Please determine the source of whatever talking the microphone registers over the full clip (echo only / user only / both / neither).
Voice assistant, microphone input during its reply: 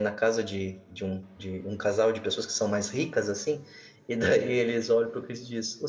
user only